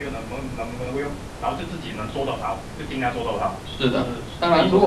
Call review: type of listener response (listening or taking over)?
taking over